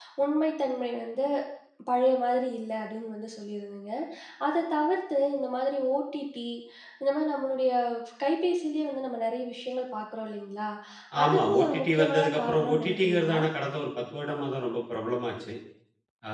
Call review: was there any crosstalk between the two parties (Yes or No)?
Yes